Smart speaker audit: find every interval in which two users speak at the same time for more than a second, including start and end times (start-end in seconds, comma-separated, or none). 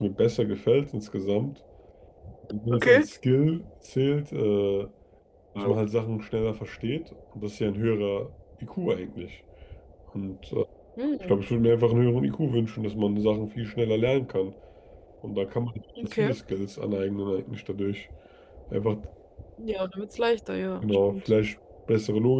none